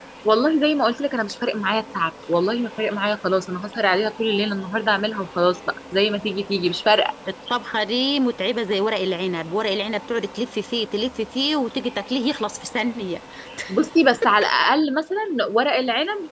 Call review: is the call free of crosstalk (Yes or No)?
Yes